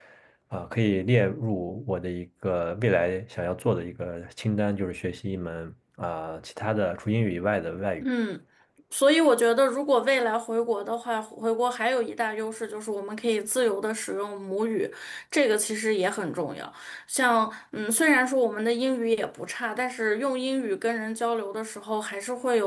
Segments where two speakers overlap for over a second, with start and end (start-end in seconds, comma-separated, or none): none